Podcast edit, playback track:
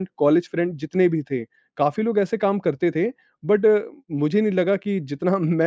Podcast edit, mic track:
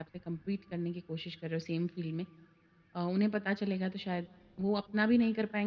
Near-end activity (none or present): present